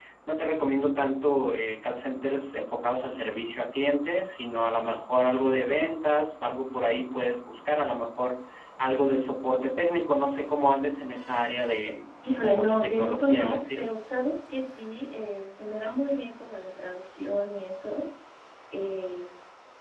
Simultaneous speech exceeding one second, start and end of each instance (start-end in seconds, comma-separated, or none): 12.4-13.8